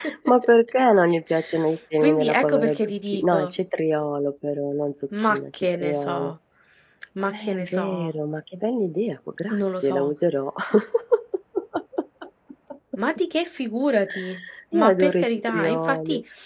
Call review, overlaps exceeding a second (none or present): present